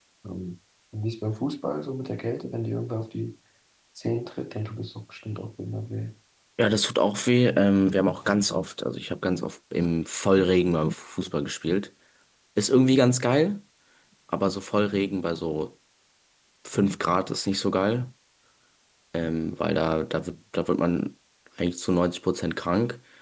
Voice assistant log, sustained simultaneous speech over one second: none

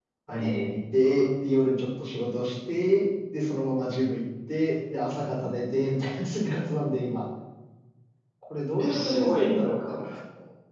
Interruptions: present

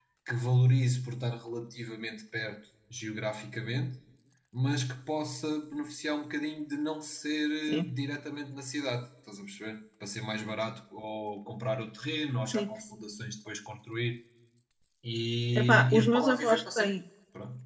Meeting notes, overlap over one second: present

